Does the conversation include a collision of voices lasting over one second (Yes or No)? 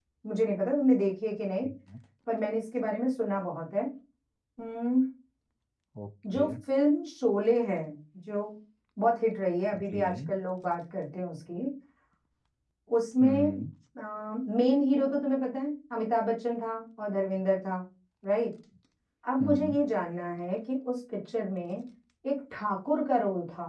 No